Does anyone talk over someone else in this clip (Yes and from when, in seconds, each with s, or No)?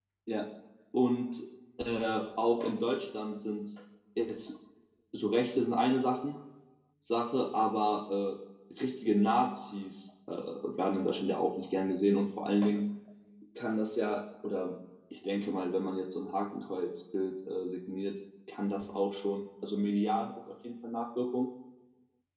No